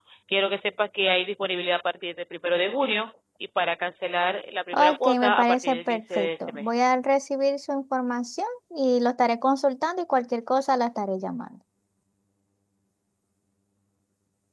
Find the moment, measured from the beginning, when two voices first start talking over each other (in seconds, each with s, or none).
4.7 s